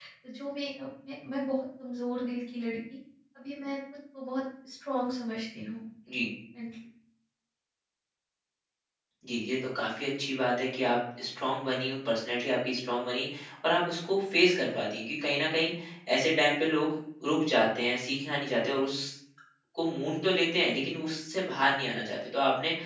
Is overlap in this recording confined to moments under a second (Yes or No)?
Yes